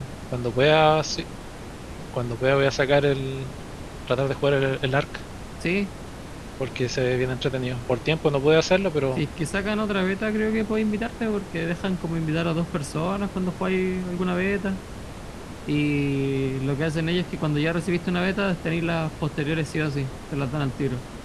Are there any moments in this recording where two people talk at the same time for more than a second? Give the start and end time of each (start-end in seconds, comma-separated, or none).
none